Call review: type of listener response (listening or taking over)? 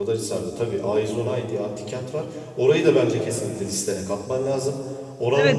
taking over